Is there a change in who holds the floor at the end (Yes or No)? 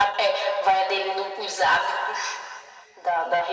No